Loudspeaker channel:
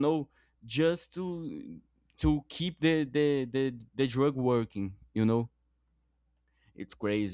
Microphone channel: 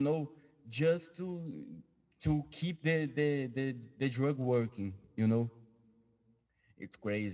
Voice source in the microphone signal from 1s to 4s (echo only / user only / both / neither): echo only